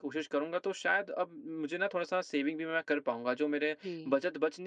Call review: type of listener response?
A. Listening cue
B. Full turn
A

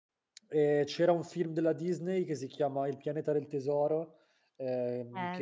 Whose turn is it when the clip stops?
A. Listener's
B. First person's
B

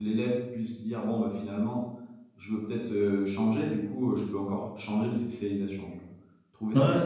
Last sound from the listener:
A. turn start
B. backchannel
A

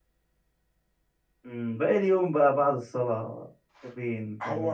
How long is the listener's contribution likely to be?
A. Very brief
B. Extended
B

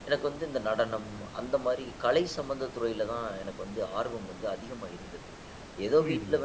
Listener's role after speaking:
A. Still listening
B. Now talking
A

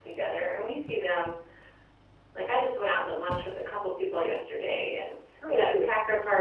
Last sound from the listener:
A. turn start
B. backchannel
B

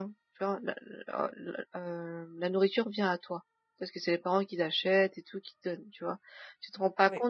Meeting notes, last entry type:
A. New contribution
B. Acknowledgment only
B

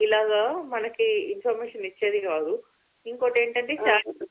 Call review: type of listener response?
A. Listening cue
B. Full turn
A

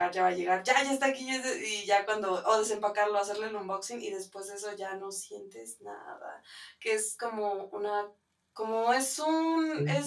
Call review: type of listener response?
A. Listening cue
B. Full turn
A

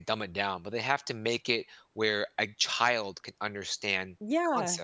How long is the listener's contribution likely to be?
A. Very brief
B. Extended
B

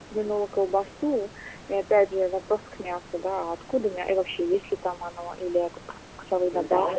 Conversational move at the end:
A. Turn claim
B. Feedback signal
A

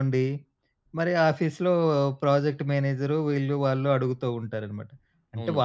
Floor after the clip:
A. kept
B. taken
A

